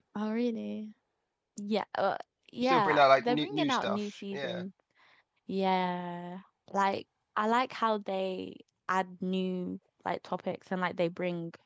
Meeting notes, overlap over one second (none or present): present